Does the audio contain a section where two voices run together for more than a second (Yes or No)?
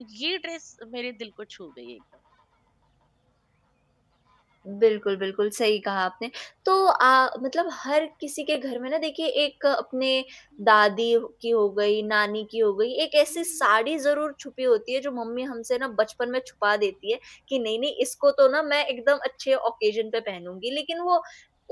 No